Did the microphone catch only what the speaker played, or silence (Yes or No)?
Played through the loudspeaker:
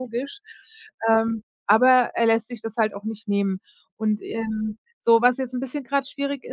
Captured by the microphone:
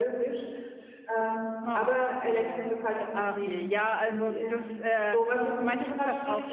No